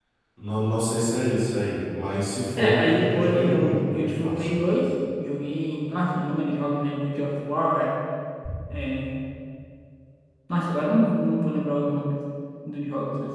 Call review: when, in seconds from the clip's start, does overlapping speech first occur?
2.6 s

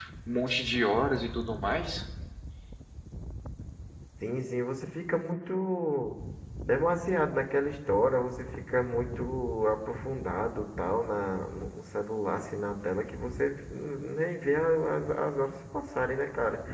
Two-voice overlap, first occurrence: none

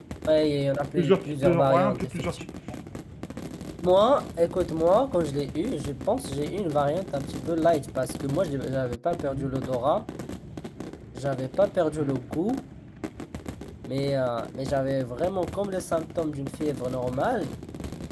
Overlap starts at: 1.0 s

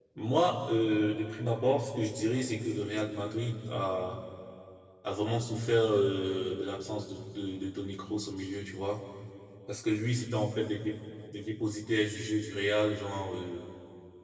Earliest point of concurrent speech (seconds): none

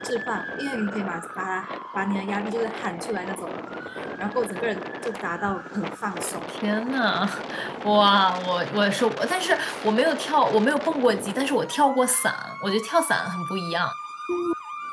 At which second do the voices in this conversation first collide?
none

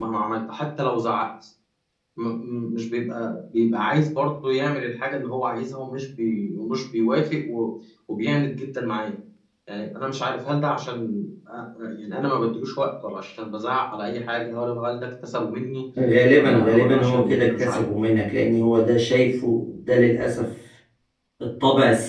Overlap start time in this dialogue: 16.4 s

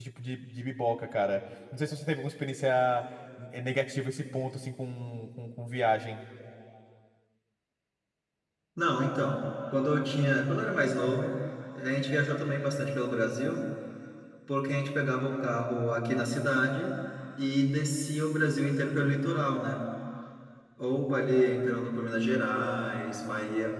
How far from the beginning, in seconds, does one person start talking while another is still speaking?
none

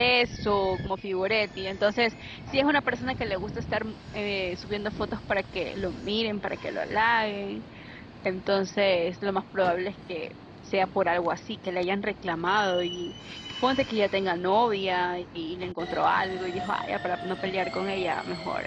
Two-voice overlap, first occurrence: none

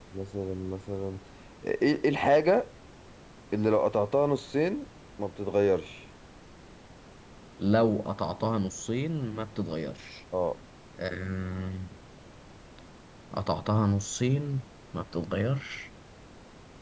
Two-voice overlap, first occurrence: none

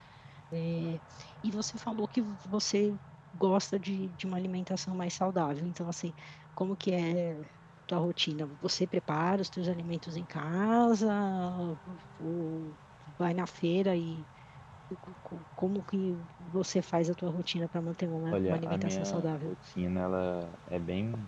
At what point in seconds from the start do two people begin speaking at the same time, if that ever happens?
18.3 s

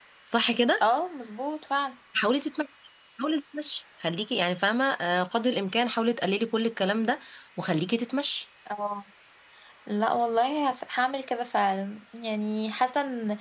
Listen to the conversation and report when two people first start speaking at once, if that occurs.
none

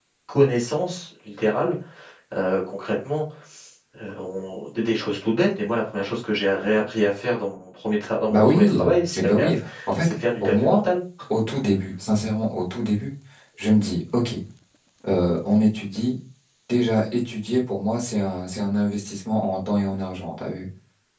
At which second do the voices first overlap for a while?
8.3 s

